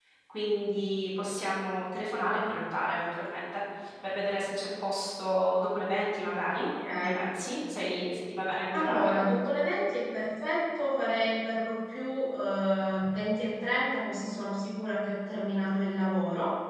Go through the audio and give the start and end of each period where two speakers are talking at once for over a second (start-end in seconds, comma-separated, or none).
none